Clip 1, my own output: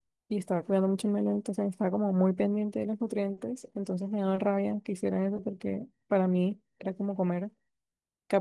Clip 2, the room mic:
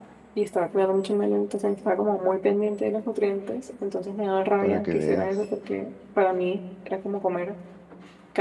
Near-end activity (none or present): present